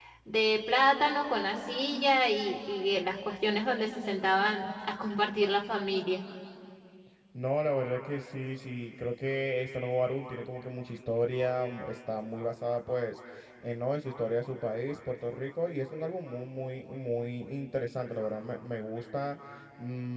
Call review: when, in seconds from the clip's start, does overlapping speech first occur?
none

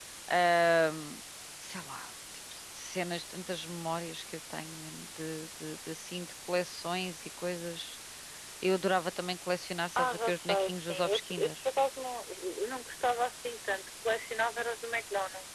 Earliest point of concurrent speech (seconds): 10.0 s

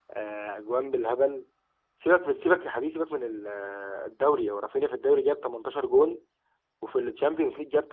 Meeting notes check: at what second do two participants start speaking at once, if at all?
none

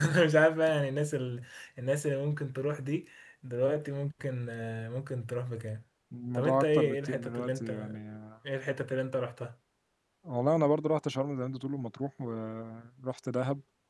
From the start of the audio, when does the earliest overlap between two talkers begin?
6.3 s

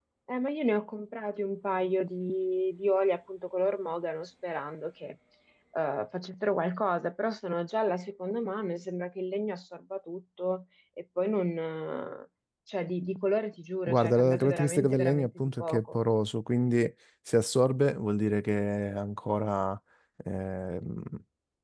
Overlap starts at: 13.9 s

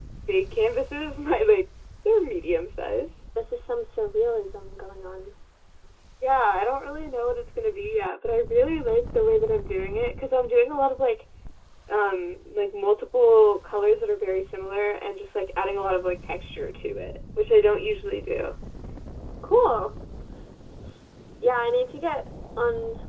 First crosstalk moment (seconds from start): none

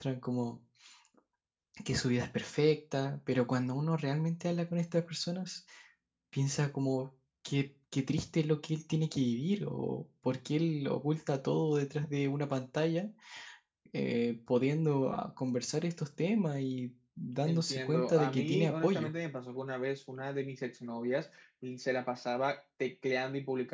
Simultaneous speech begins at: 17.5 s

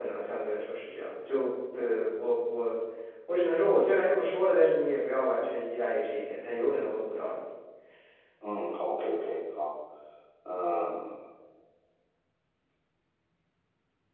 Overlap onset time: none

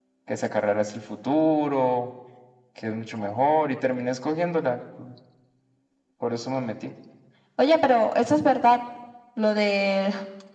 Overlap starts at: none

